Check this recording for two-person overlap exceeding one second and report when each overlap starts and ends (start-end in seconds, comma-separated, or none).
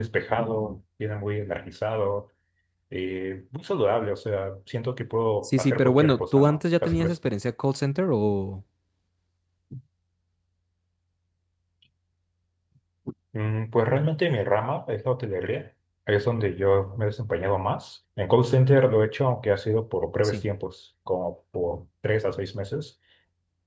5.4-7.1